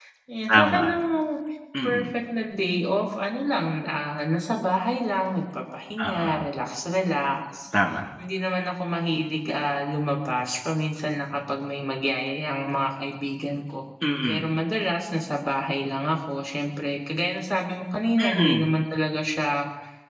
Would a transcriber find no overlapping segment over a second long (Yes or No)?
Yes